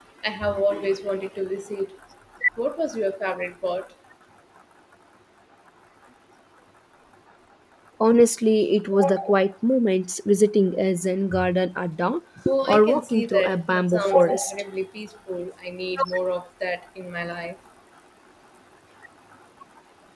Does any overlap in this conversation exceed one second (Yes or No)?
Yes